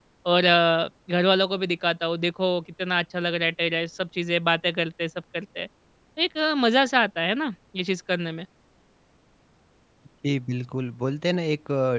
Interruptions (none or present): none